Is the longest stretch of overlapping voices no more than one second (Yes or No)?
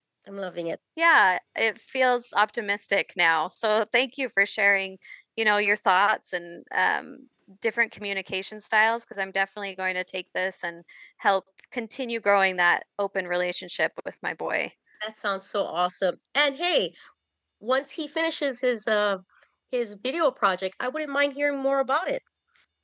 Yes